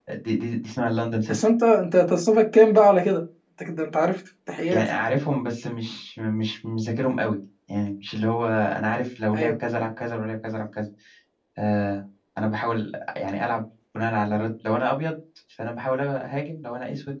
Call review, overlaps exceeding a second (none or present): none